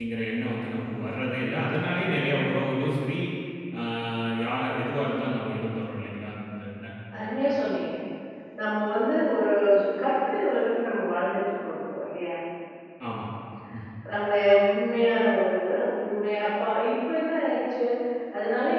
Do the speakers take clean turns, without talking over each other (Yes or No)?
Yes